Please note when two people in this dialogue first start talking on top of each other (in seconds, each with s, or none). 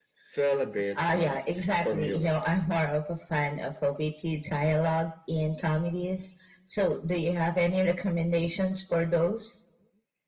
1.1 s